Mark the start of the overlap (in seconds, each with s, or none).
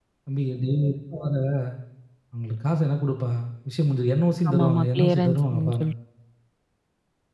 4.5 s